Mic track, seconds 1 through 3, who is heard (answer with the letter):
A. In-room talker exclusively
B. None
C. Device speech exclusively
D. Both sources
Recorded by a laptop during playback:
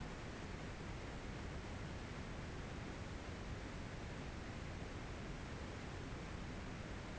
B